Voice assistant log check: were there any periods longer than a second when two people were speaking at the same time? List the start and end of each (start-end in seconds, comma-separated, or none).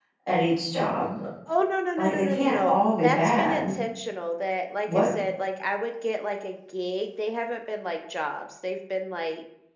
2.0-3.6